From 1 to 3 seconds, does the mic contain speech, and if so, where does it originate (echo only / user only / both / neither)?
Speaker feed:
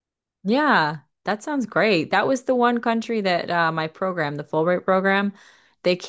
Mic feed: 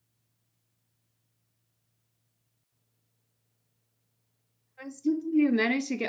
neither